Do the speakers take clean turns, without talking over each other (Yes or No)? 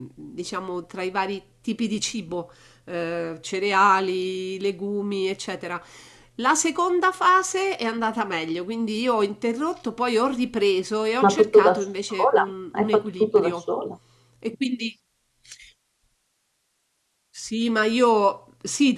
No